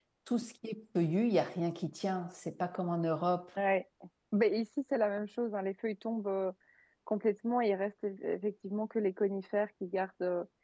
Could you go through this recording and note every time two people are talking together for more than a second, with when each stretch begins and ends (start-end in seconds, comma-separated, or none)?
none